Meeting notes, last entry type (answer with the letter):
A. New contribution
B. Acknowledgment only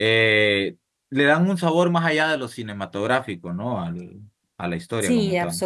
A